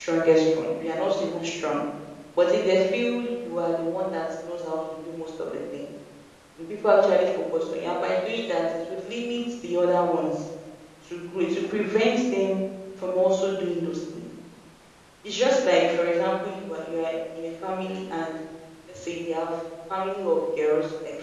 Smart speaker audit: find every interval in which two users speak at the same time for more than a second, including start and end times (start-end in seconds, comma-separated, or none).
none